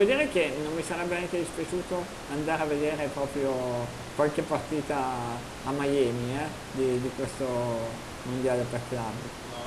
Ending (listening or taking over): taking over